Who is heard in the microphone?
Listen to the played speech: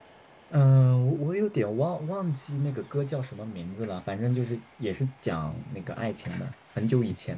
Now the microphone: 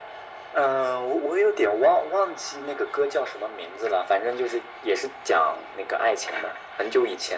echo only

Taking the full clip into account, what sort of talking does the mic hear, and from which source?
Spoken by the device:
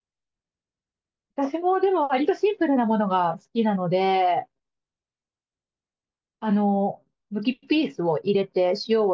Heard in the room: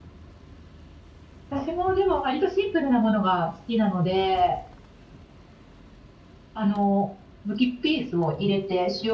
echo only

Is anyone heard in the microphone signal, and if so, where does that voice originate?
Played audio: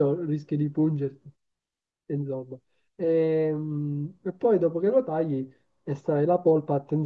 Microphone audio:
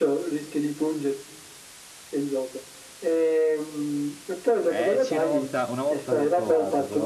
both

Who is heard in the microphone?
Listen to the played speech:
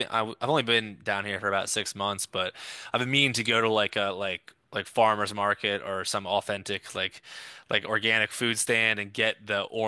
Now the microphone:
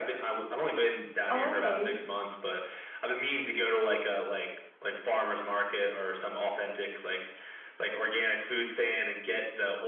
both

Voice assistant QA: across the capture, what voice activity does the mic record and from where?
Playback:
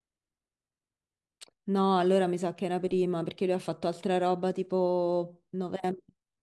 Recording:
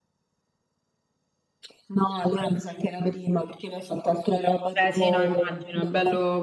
both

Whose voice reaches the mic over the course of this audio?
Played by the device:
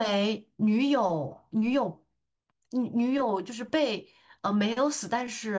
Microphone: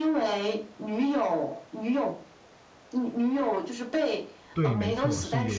both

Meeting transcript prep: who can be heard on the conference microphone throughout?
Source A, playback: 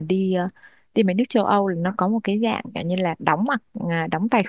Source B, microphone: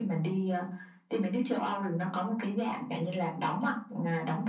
echo only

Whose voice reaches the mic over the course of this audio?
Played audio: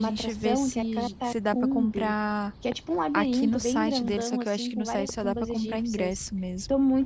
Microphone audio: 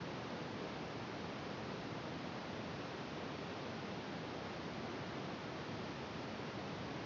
neither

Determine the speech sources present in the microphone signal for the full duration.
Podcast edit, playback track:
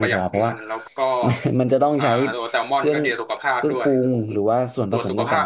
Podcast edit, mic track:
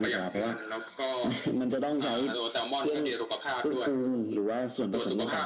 echo only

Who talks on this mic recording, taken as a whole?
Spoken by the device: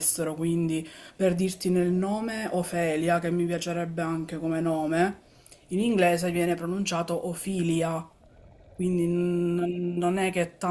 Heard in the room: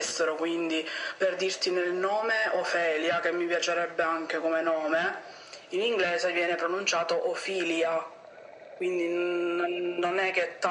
echo only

